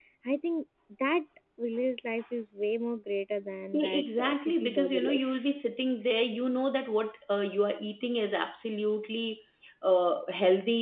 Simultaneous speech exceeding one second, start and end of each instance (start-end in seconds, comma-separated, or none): 3.7-5.5